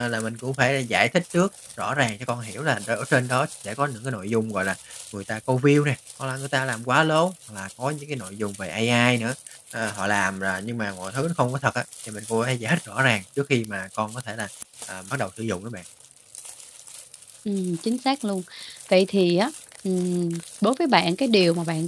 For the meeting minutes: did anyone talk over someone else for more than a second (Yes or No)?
No